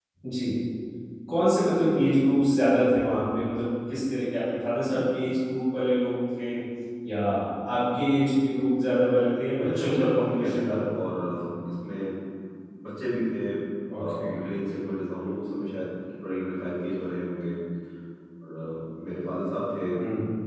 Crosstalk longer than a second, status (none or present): present